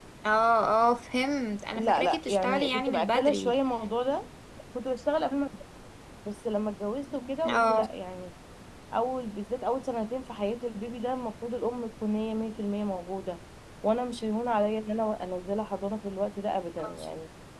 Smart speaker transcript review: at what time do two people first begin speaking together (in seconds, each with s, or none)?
1.8 s